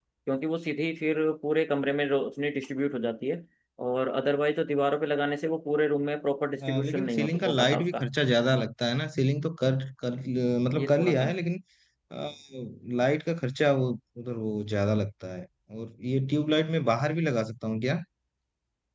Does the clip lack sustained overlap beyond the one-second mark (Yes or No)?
No